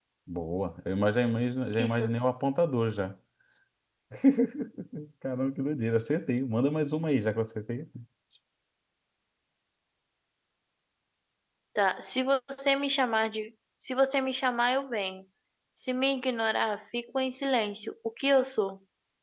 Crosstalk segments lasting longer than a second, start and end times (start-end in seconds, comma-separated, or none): none